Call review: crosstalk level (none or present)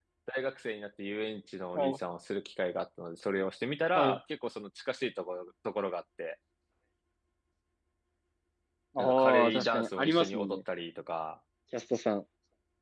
present